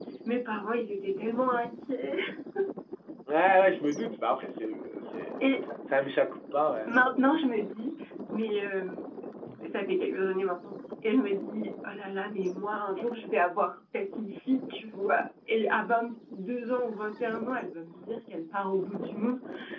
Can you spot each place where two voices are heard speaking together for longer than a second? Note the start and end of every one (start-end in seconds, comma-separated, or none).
none